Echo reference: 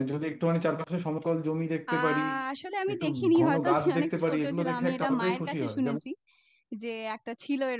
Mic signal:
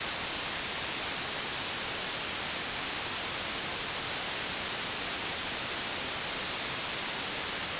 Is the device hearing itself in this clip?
No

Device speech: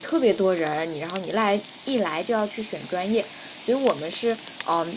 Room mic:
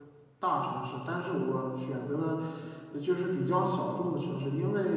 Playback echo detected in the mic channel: No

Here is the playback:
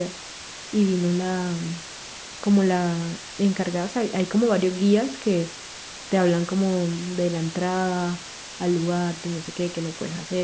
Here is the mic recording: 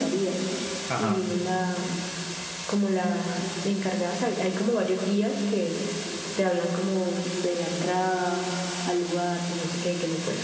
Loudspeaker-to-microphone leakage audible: Yes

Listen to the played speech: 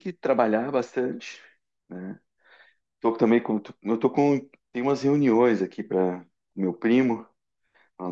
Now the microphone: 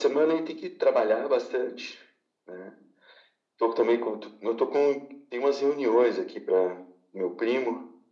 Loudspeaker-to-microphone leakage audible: Yes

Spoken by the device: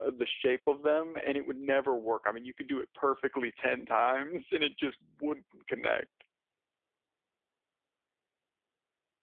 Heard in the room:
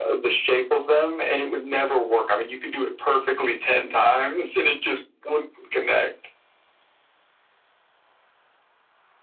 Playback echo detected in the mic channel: Yes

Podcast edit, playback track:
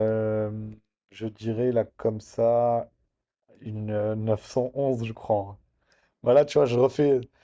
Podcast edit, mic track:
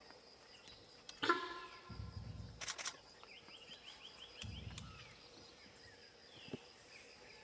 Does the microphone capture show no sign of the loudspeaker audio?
Yes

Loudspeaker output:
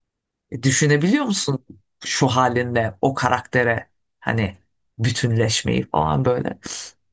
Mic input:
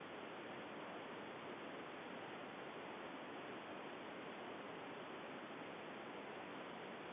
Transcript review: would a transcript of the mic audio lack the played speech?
Yes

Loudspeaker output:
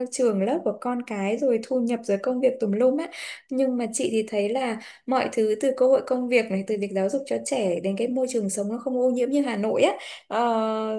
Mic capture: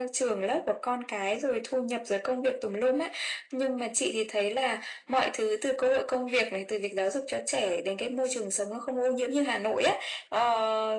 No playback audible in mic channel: No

